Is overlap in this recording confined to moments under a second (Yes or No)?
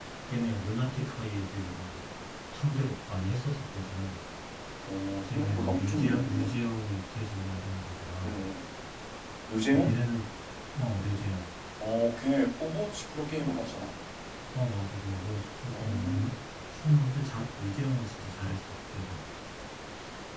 No